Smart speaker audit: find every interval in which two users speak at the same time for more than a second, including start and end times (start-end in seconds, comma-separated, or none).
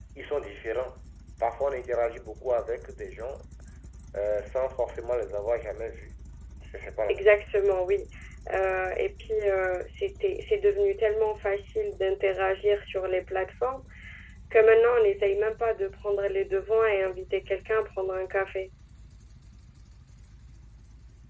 none